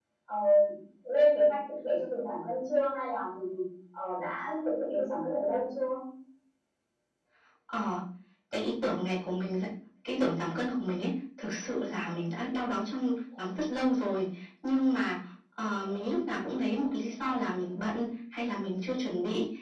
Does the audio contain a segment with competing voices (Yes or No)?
No